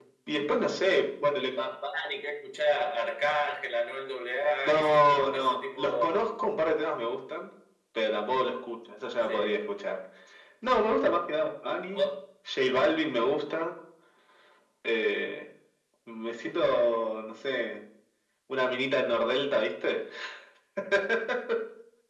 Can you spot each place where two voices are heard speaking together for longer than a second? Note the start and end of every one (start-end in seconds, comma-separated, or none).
4.6-6.1